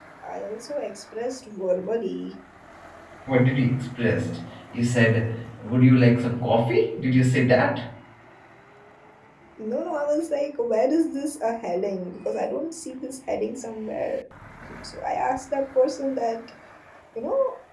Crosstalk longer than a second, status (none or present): none